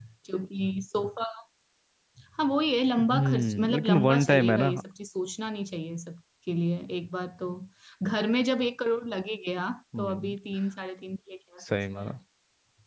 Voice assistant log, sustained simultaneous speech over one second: present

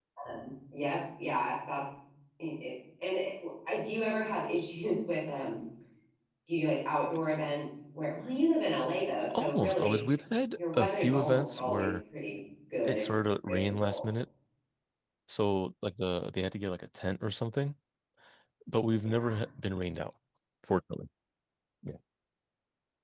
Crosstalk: present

